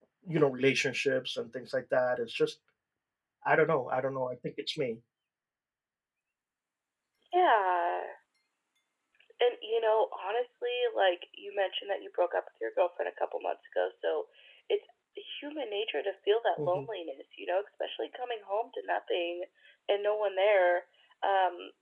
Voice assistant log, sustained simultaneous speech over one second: none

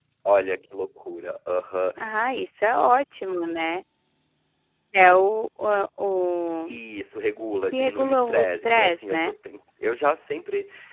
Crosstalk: present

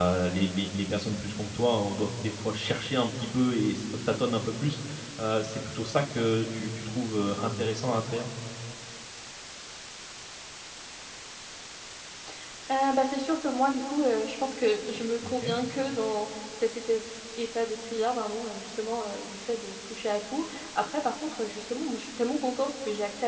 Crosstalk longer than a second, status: none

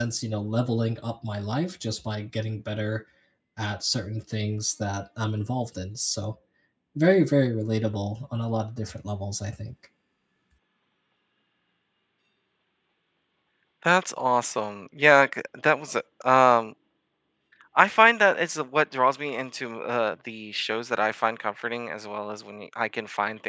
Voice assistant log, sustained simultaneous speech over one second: none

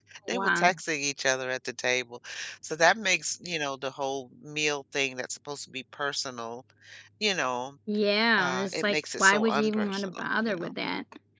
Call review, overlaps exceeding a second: present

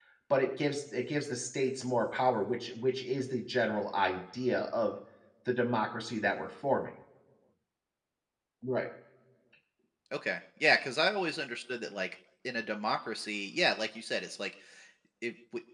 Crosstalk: none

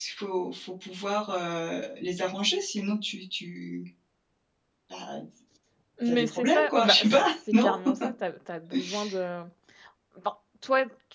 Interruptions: present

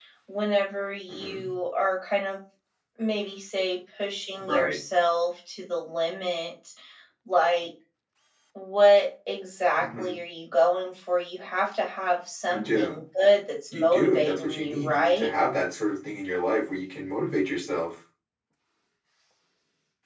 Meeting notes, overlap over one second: present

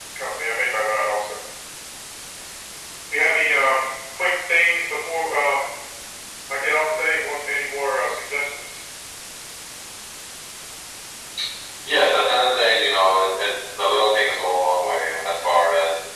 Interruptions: none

